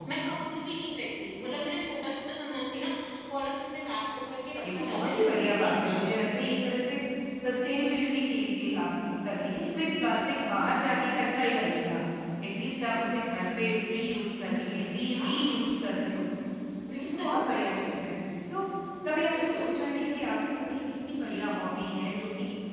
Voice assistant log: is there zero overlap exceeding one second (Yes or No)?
No